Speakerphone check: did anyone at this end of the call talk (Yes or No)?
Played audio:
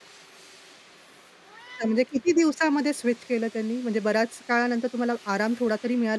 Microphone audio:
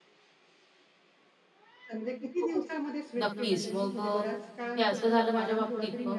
Yes